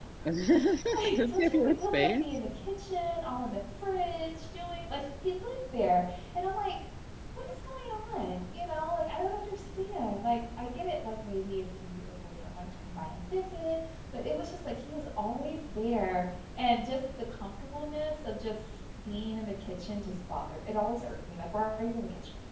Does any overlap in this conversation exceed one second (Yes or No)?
Yes